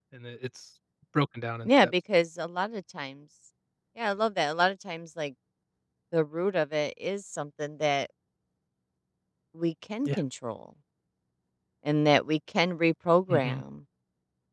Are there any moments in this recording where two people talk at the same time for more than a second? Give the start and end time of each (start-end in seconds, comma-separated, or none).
none